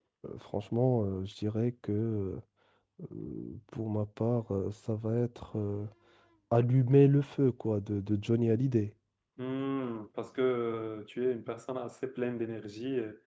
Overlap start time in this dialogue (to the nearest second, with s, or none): none